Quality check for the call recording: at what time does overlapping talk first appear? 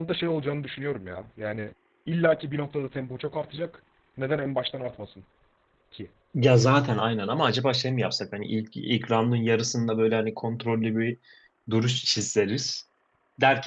none

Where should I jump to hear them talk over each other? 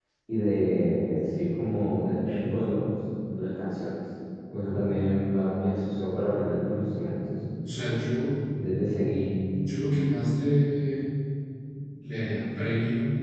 none

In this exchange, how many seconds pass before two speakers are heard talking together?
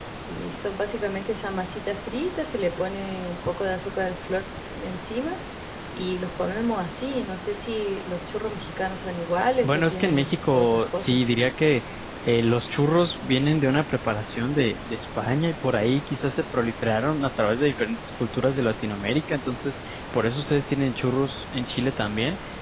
9.6 s

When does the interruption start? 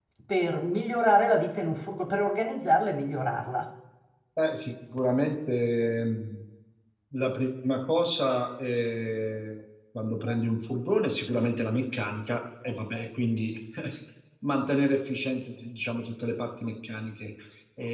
none

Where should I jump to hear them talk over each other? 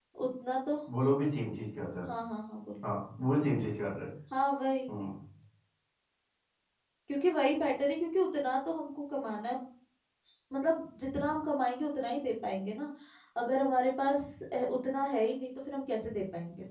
none

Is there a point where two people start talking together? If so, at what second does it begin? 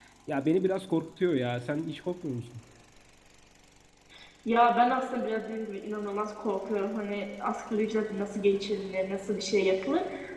none

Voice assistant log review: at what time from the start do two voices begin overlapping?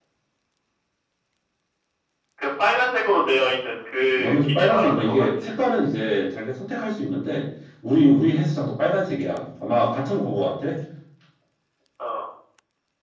4.1 s

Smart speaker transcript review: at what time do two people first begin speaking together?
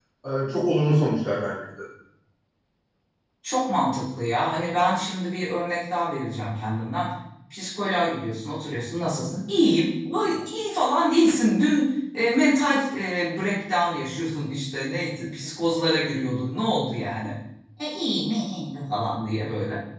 none

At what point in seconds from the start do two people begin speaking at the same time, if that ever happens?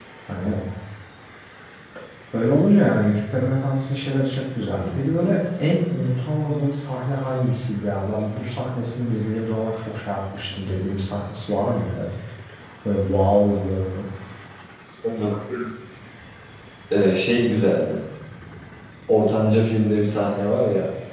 none

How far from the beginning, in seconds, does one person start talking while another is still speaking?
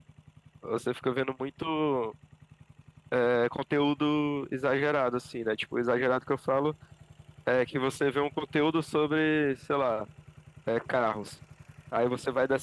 none

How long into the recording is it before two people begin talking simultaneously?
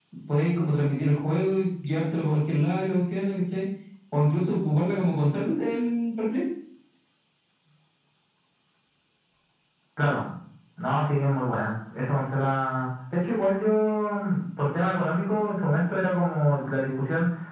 none

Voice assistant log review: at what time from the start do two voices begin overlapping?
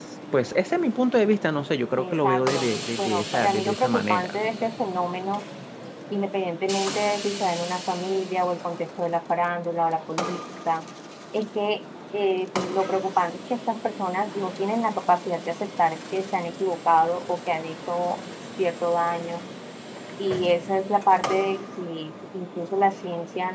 2.0 s

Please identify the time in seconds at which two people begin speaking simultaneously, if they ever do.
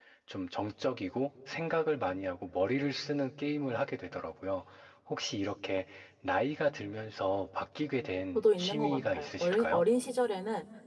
8.3 s

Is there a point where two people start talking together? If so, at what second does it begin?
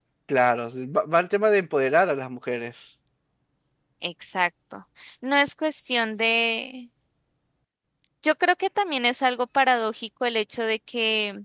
none

